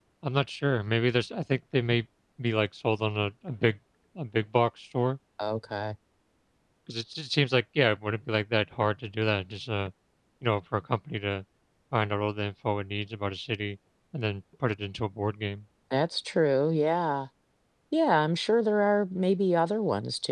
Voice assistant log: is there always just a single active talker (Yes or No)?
Yes